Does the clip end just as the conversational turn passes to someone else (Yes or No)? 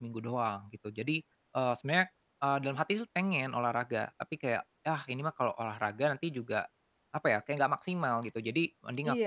Yes